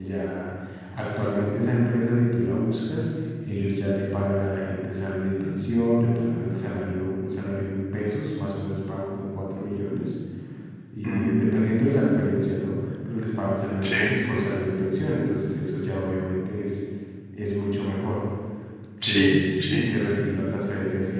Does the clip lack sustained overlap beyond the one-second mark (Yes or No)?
Yes